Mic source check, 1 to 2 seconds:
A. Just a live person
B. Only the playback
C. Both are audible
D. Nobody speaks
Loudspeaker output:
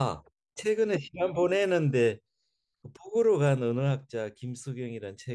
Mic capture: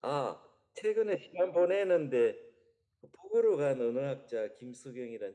B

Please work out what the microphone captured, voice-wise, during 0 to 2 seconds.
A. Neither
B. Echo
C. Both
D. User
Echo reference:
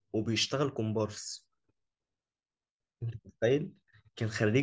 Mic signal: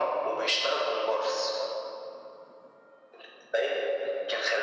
B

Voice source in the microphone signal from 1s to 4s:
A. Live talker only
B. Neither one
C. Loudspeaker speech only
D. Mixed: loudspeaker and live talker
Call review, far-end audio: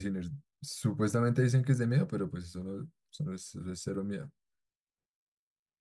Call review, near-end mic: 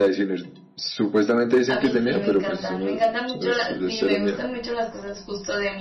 D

